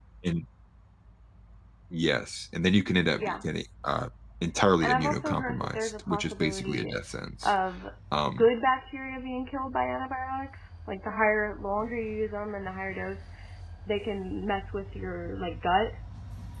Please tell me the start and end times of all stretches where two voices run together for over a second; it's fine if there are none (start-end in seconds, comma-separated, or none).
4.8-6.9